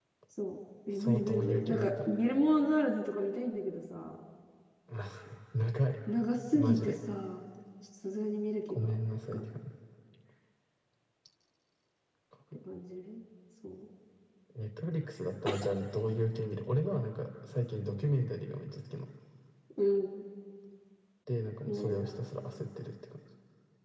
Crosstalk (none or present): present